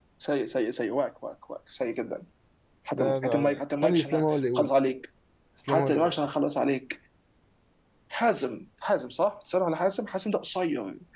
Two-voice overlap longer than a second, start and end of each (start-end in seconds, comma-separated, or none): 2.9-4.1